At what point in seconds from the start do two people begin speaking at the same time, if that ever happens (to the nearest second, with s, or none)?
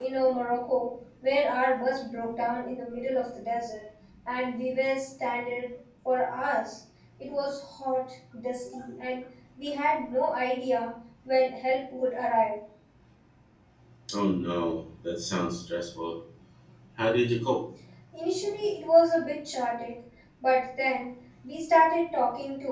none